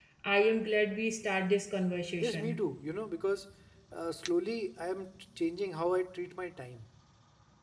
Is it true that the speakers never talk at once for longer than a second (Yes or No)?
Yes